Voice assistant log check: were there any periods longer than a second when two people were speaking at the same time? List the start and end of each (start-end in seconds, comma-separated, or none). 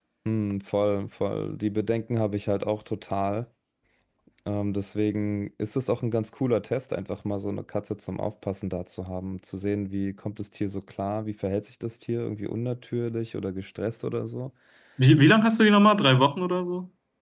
none